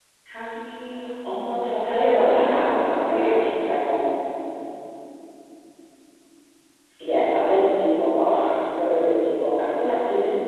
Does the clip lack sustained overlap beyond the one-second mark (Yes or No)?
No